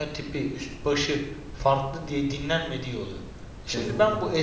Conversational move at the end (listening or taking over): listening